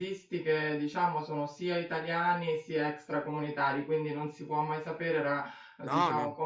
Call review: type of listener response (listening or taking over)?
listening